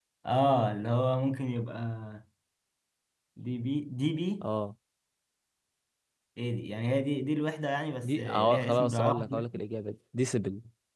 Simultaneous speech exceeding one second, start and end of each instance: 8.0-9.4

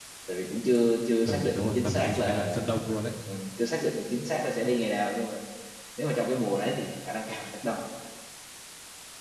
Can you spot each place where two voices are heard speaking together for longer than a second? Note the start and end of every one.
1.2-2.6

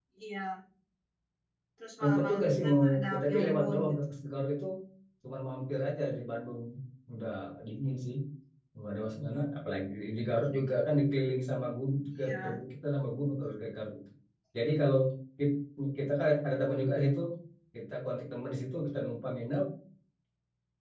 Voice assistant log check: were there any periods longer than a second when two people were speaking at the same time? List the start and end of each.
2.0-3.9

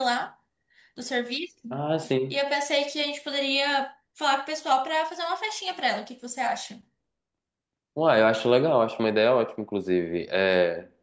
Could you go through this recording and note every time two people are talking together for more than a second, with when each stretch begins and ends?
none

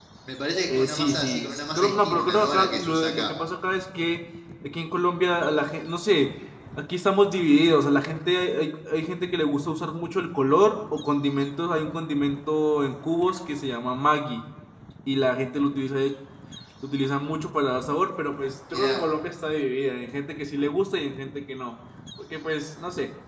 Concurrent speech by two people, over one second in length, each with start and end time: 0.7-3.3

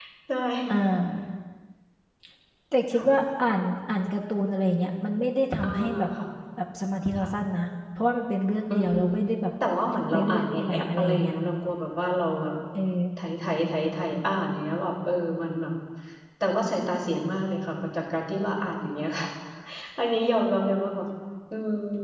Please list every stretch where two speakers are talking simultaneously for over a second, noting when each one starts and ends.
10.1-11.3

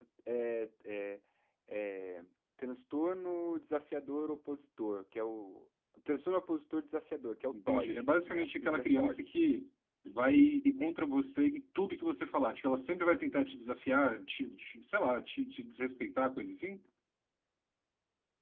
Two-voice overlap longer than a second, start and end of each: 7.5-9.3

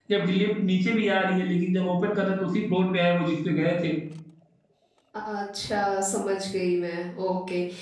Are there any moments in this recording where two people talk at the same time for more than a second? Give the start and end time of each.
none

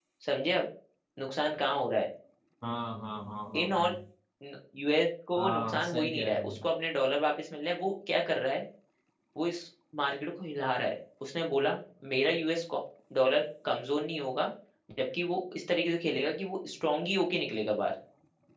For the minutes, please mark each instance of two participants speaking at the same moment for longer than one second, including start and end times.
5.4-6.6

